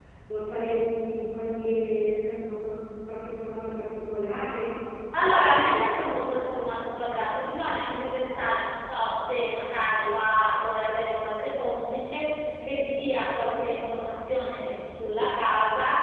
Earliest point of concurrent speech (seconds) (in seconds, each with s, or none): none